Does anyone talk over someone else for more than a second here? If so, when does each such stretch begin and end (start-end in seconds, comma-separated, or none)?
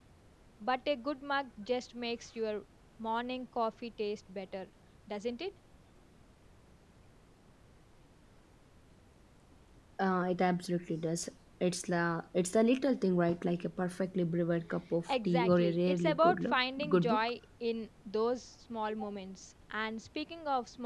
15.1-17.2